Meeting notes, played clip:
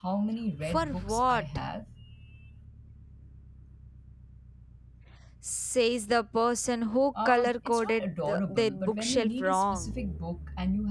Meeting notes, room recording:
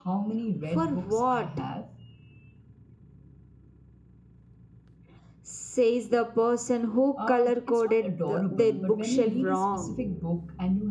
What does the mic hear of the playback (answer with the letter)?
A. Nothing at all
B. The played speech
B